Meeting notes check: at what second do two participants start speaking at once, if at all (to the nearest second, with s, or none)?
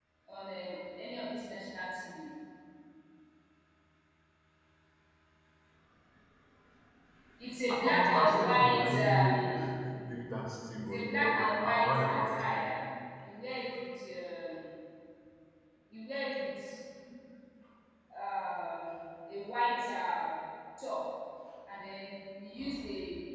8 s